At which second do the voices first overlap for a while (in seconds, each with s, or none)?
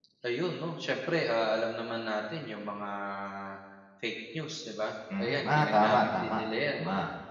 5.1 s